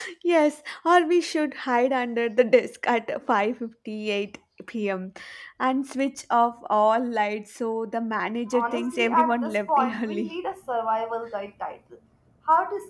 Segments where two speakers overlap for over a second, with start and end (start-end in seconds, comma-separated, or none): 8.5-10.3